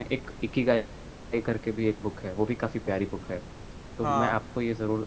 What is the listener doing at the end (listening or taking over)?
listening